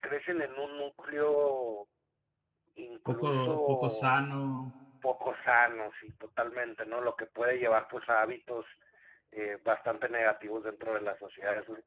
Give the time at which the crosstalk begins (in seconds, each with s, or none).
3.1 s